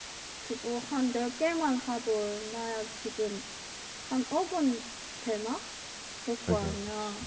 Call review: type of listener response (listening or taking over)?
taking over